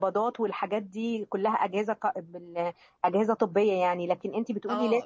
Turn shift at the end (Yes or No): Yes